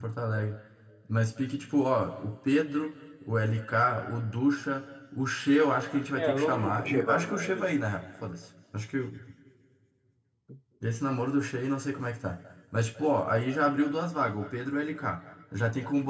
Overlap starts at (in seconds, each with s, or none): 6.2 s